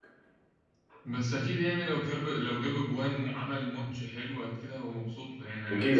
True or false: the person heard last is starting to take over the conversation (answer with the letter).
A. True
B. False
A